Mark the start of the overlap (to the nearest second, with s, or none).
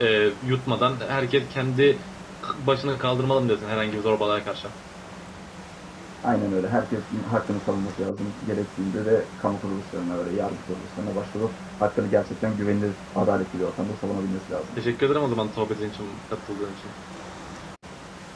none